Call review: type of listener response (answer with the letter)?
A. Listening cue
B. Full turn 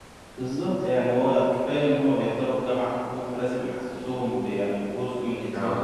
A